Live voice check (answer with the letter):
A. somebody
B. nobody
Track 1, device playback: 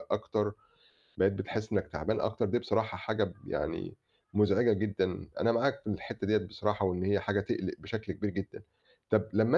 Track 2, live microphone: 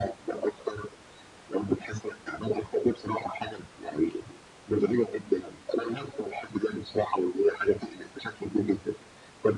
B